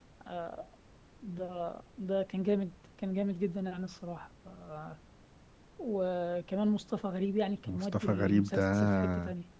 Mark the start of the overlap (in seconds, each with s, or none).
7.7 s